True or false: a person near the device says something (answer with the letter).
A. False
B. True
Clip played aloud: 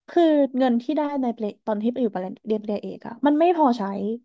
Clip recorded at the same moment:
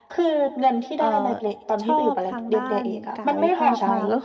B